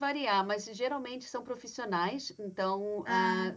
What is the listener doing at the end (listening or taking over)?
listening